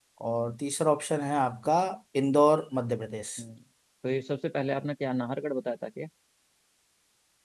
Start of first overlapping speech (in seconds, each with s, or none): none